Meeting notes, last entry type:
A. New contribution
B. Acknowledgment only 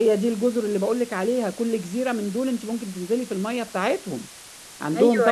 A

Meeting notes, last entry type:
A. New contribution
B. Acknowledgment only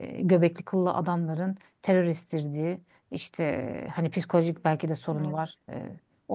B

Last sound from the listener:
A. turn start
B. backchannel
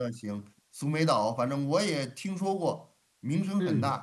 A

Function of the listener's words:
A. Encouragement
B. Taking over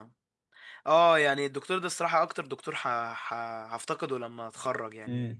A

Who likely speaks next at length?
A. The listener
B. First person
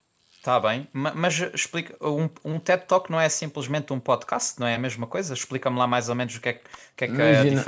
A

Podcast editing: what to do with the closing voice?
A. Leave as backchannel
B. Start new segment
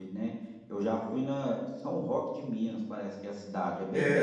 B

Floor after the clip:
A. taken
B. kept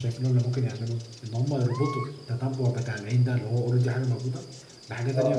B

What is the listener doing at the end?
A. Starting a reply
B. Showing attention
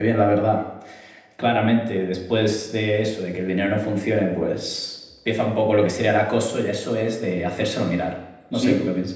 A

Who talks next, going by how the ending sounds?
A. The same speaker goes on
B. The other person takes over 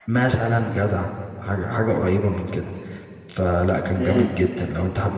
A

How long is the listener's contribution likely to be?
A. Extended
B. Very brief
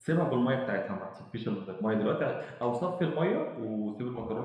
B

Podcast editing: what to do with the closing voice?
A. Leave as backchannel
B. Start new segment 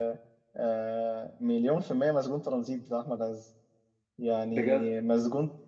A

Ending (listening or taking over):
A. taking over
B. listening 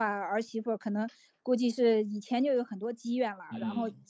B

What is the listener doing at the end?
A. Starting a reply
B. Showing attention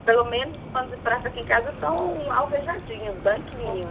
A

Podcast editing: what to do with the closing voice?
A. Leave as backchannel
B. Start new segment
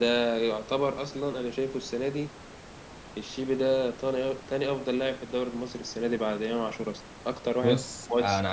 B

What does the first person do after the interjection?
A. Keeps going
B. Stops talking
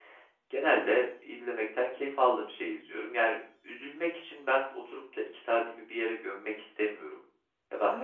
B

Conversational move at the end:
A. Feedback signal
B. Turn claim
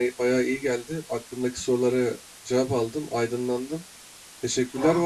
A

